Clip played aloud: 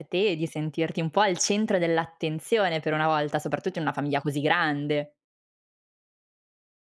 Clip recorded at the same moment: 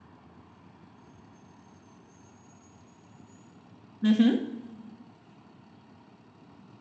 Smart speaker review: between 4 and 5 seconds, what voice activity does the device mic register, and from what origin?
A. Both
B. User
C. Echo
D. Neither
B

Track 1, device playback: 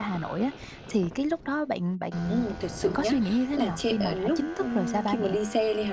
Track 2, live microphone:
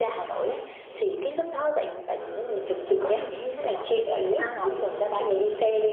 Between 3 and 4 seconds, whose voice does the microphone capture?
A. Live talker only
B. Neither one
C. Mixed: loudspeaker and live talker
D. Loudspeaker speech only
D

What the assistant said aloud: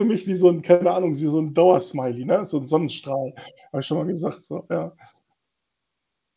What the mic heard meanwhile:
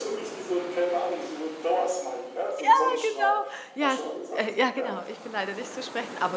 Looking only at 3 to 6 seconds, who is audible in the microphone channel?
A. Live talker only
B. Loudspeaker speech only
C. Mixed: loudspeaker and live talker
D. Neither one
C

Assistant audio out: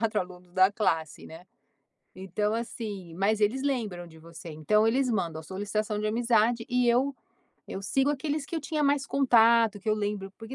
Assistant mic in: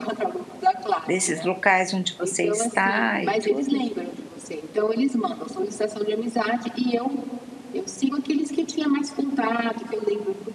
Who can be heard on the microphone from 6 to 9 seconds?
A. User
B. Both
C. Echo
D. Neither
C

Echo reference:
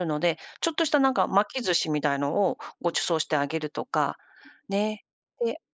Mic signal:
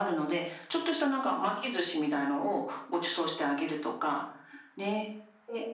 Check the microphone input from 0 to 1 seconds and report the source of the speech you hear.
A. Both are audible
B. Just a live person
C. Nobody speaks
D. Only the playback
D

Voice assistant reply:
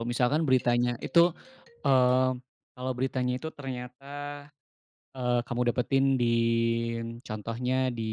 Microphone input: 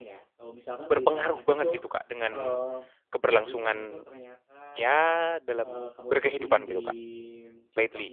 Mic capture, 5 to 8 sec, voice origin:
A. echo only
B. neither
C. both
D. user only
C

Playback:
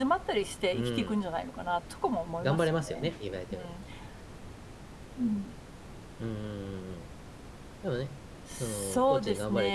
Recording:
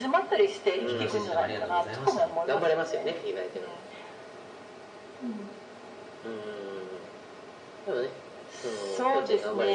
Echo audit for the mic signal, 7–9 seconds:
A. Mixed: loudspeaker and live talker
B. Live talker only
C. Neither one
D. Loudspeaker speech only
D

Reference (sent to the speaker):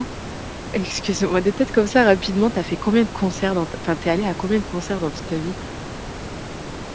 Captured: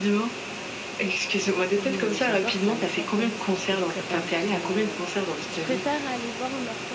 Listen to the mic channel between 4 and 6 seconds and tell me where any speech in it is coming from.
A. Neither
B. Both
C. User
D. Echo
B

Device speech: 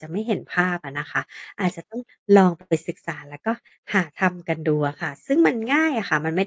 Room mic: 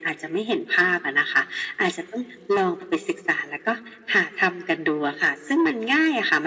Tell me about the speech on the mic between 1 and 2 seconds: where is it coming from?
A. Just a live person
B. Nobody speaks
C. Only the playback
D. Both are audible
C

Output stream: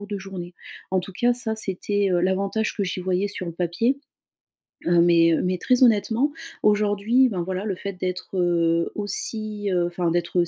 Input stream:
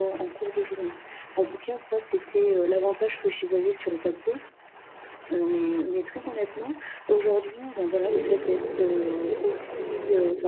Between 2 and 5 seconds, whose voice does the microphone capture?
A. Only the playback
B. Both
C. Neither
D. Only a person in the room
A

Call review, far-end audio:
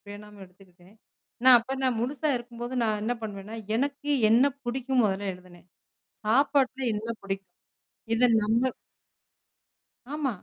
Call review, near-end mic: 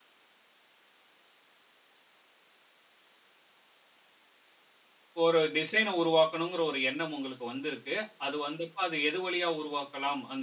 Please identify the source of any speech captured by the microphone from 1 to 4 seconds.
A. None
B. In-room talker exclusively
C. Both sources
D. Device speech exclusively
A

